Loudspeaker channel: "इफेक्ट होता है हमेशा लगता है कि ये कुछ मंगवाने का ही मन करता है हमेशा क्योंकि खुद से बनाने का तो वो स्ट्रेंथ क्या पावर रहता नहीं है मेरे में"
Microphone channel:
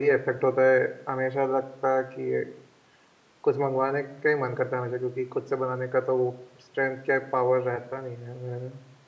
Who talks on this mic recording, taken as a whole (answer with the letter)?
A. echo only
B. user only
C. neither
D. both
A